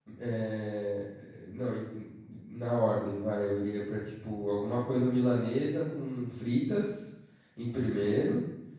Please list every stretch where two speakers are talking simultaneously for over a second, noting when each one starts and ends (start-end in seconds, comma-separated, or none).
none